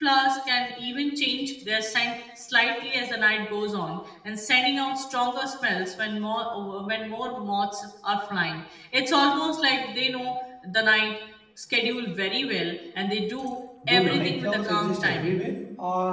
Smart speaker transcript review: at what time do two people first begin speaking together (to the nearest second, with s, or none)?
14 s